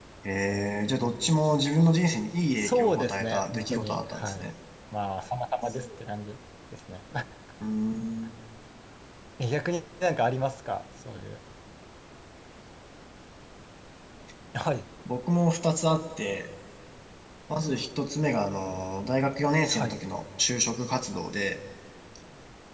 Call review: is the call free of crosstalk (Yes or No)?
No